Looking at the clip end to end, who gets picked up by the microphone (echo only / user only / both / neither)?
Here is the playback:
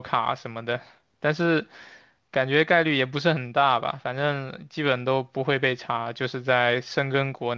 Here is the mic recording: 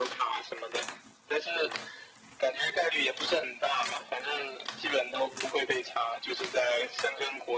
echo only